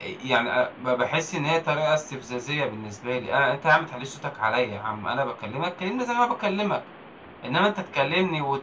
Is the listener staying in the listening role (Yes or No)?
Yes